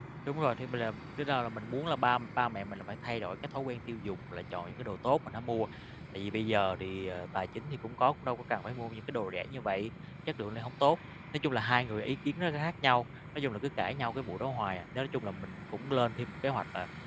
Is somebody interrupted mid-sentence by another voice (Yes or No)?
No